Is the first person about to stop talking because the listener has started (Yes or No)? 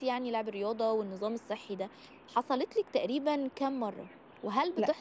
No